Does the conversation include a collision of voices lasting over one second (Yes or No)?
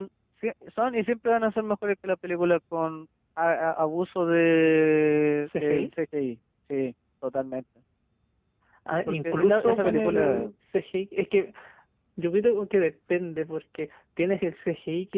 Yes